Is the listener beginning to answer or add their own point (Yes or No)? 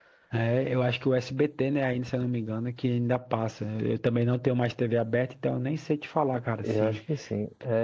Yes